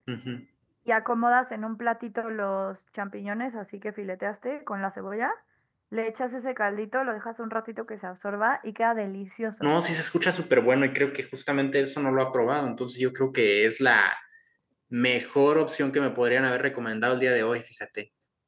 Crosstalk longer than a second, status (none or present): none